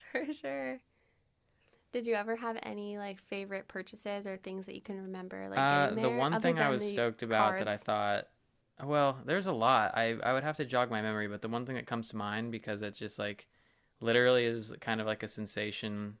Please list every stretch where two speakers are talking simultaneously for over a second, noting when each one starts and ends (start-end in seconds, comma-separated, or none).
5.6-7.7